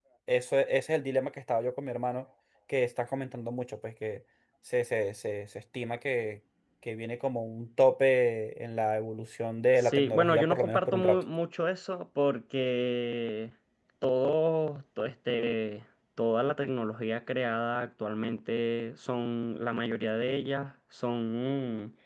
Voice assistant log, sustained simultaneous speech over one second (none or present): present